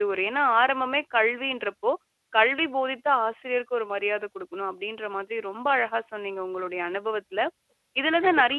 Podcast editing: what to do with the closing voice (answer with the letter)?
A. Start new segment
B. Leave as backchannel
B